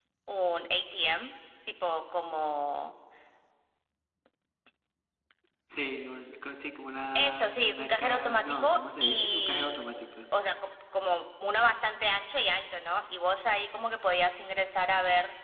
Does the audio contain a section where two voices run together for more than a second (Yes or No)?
Yes